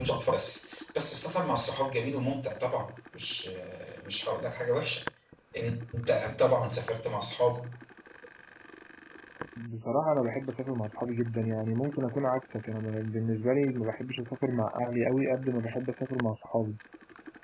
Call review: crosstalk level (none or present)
none